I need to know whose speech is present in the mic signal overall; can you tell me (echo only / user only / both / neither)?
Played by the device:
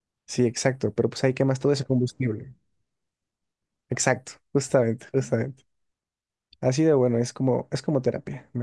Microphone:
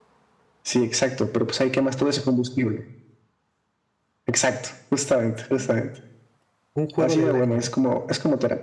both